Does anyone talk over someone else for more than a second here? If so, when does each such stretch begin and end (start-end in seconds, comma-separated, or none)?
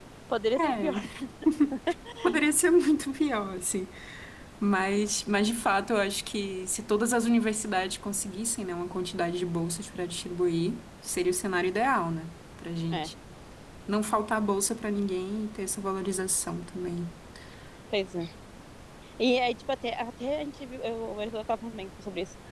none